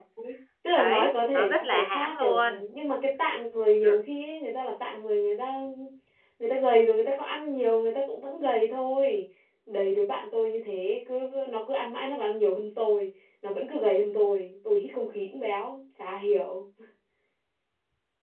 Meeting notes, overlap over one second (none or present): present